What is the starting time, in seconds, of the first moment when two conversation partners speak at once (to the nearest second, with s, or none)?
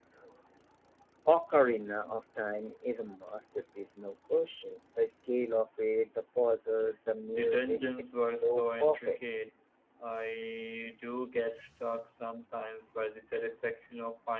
7 s